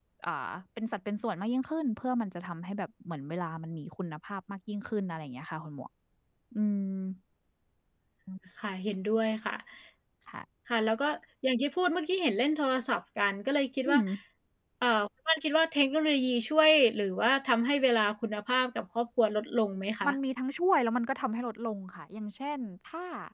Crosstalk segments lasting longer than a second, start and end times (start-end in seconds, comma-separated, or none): none